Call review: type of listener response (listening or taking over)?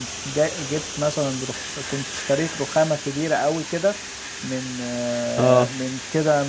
listening